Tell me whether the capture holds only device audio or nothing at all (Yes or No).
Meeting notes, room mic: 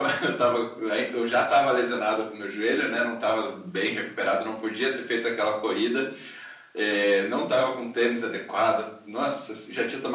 Yes